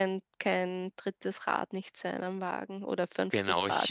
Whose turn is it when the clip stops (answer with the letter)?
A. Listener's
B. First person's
A